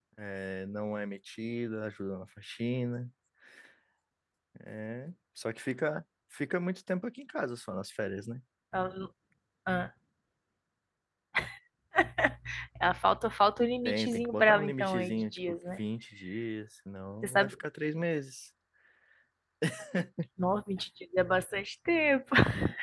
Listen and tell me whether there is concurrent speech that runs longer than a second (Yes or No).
Yes